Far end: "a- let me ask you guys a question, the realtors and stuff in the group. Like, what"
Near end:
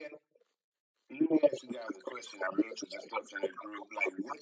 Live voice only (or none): none